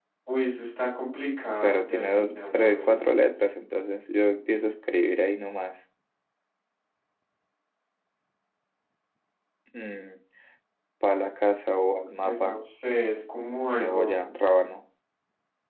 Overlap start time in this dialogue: 2 s

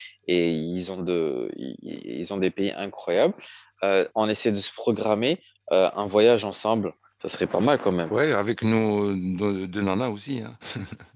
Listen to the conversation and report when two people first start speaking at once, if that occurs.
none

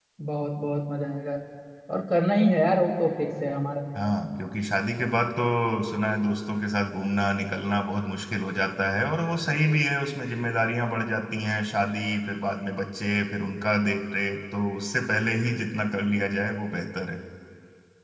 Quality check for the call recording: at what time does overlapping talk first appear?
none

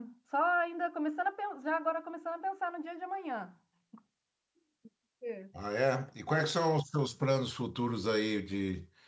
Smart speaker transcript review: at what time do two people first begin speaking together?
none

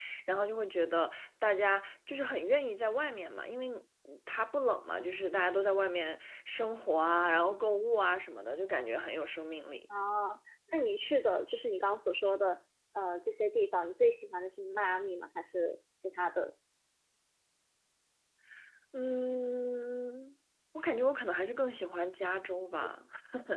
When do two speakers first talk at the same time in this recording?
none

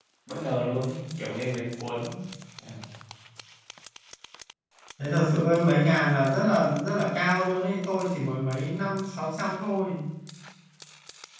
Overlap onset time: none

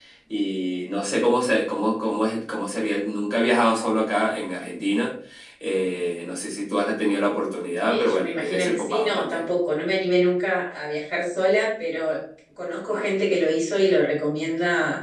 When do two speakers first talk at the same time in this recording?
8 s

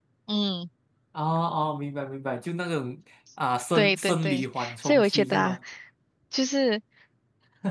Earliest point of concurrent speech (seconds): 4 s

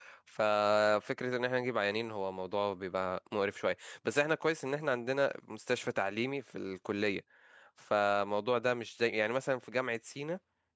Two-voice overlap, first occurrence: none

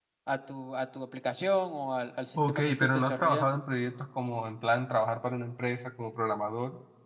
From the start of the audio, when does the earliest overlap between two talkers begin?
2 s

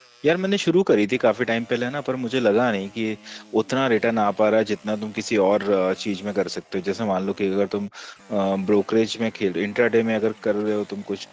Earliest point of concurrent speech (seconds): none

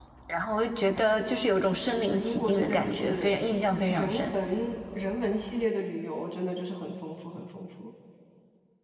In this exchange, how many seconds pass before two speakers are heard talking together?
2 s

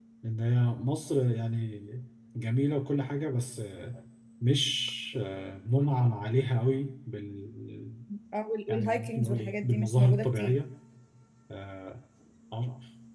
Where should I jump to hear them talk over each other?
9 s

